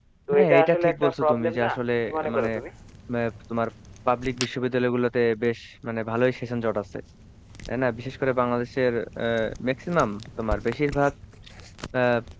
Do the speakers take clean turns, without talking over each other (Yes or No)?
No